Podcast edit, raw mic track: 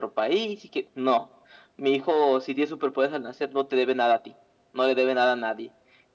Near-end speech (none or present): none